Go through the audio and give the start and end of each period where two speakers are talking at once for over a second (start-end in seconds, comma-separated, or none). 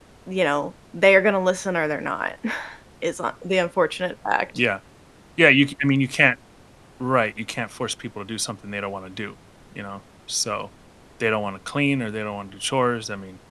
none